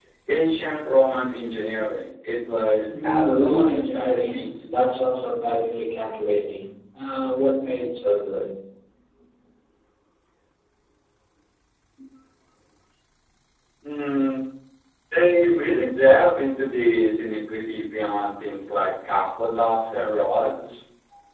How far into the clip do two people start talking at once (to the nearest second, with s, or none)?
3 s